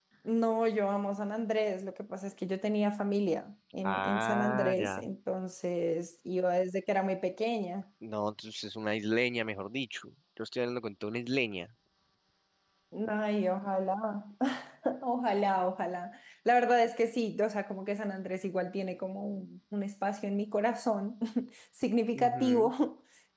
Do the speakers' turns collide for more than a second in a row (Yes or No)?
Yes